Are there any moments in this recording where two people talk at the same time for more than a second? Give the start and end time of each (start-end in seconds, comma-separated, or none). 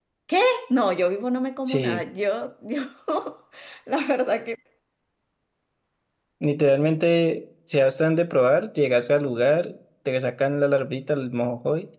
none